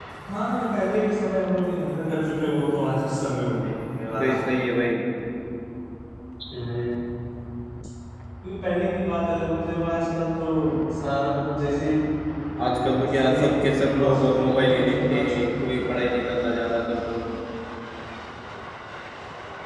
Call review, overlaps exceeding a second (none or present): present